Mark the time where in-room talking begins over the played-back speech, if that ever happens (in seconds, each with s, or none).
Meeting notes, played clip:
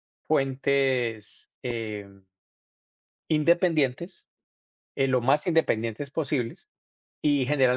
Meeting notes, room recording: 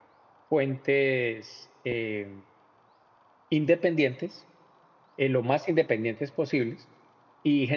none